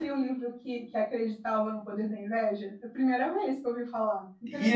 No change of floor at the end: No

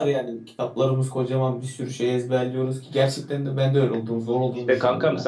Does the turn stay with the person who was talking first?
No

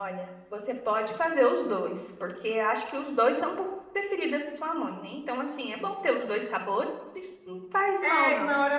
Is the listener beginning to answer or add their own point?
Yes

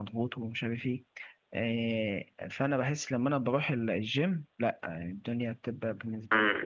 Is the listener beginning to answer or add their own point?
Yes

